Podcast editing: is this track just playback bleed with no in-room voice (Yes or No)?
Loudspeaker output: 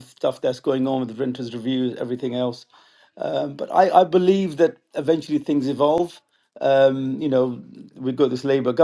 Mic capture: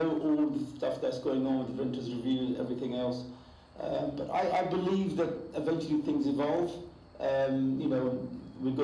Yes